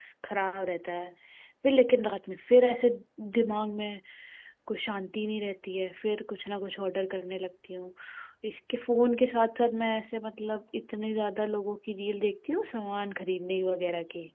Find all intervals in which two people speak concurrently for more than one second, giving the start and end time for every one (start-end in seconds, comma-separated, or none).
none